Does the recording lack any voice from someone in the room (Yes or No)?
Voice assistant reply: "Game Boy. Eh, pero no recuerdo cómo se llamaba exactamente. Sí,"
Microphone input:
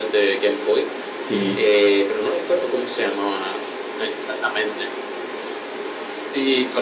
No